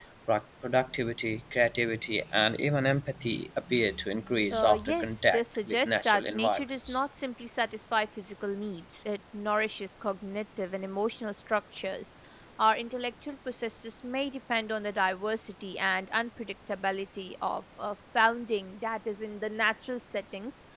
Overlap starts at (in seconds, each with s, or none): 4.5 s